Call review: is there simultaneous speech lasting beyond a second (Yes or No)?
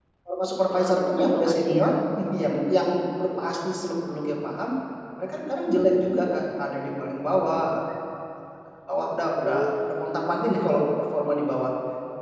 Yes